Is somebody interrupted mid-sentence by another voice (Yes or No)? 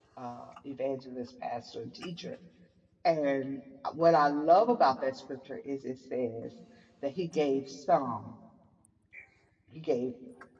No